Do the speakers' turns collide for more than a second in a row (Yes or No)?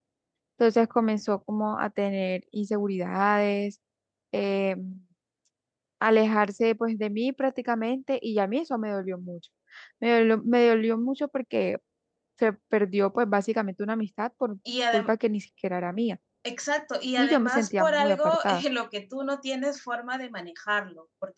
Yes